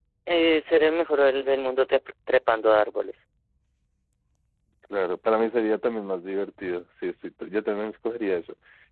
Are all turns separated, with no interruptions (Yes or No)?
Yes